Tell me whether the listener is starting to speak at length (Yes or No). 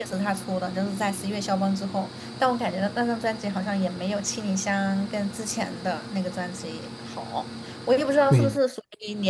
No